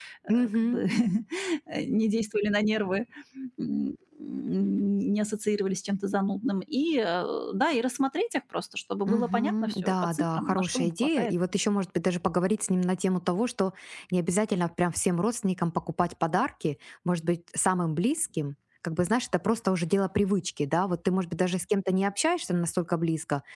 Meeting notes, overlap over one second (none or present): present